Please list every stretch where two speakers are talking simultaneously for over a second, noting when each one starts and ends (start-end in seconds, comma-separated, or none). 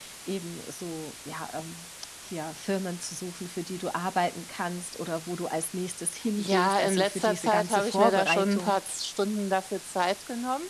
6.4-8.8